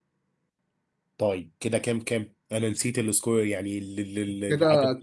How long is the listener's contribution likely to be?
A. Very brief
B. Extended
B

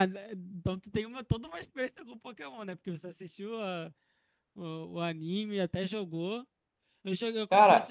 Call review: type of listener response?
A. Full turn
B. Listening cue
B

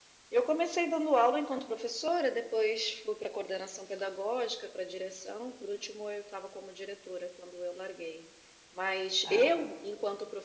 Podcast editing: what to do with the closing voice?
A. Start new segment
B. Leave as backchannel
B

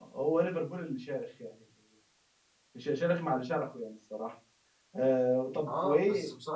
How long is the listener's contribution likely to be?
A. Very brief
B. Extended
B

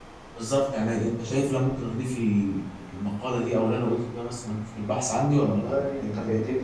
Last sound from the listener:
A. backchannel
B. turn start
B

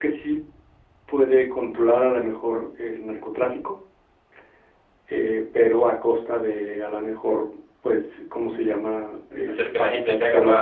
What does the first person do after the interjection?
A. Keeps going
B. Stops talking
B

